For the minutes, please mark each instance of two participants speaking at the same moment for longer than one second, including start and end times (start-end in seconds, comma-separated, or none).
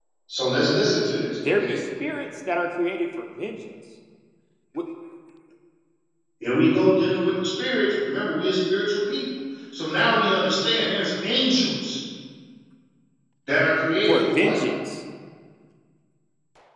none